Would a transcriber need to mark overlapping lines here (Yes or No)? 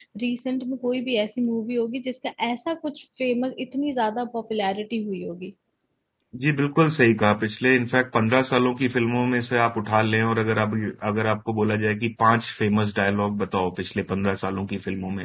No